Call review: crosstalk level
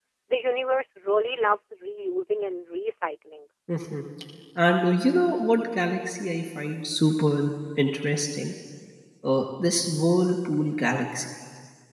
none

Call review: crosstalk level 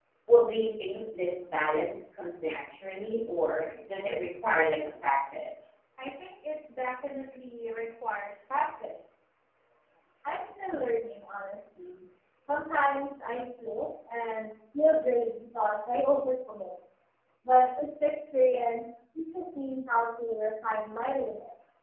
none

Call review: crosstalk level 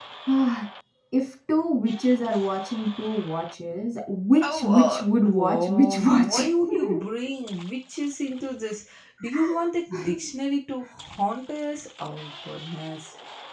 present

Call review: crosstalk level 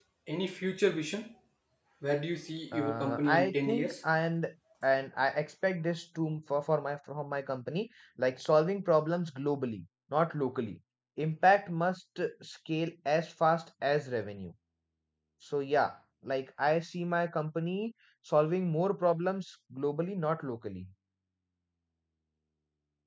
present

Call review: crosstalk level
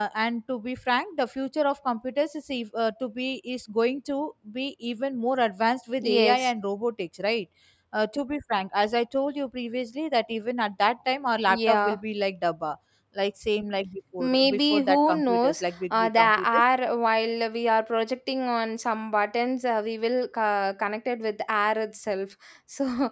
present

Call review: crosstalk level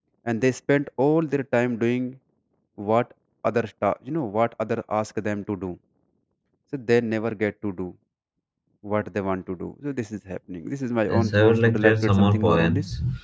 present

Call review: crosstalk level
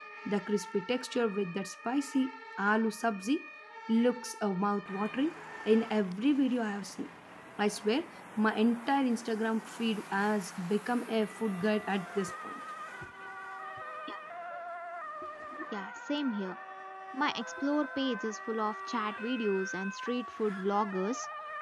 none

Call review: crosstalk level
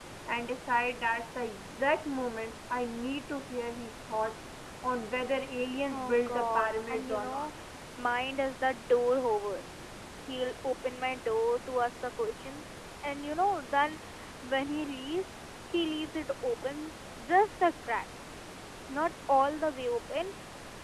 present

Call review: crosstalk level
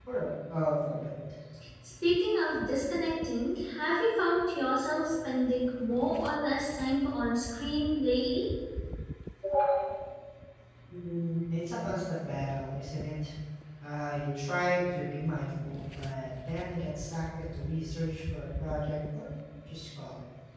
none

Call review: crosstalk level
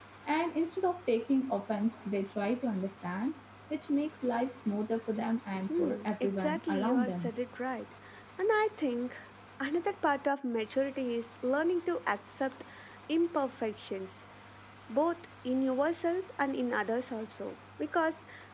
present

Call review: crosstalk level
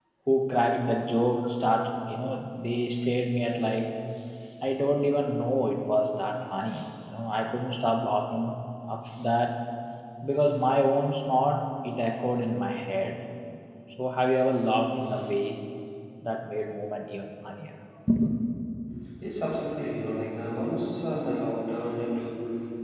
none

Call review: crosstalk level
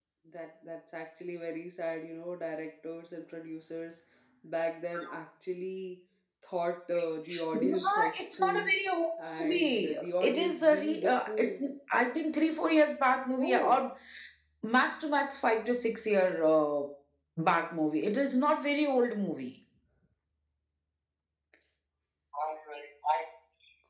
present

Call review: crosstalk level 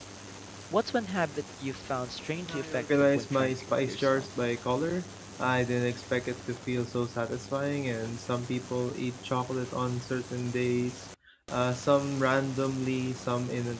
present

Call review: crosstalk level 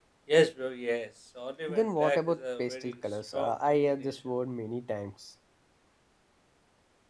present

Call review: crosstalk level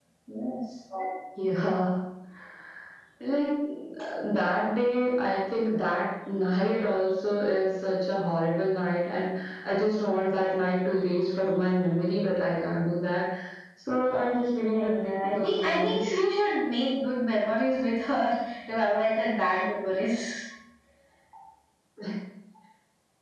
present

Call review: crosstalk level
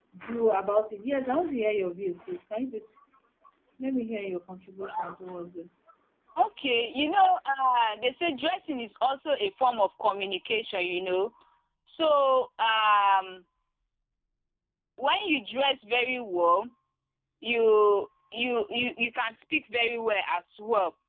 none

